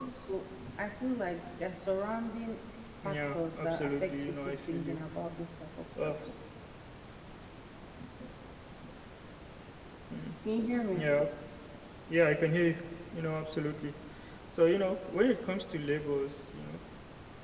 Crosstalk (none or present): present